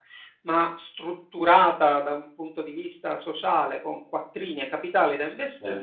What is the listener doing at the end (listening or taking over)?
listening